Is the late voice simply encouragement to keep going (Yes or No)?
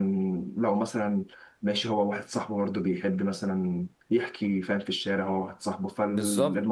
No